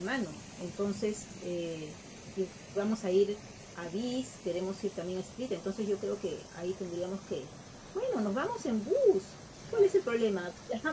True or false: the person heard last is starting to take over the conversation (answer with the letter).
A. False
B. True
A